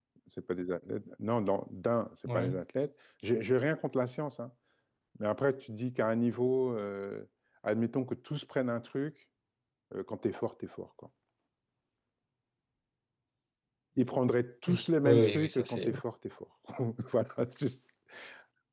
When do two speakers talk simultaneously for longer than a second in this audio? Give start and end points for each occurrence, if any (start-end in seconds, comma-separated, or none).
14.7-15.9